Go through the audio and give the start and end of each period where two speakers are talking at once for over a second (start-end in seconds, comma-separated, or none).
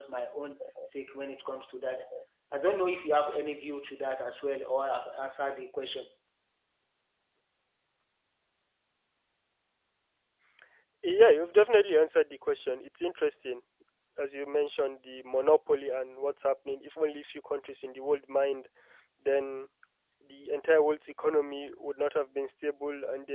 none